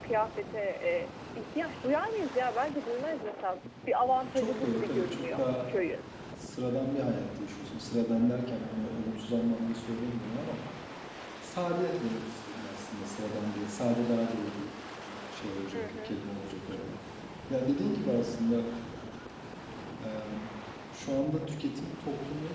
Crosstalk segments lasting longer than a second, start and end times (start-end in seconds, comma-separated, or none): 4.2-5.5